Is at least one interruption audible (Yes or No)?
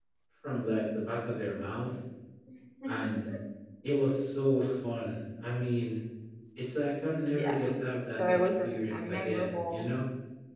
Yes